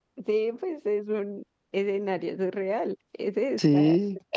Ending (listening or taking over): taking over